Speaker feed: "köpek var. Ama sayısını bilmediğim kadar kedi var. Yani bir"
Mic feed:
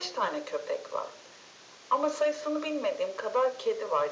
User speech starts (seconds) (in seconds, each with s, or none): none